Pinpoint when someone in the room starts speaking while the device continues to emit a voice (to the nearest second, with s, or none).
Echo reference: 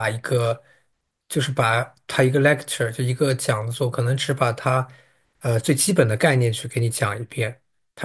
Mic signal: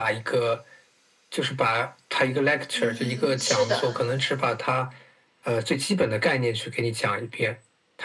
3 s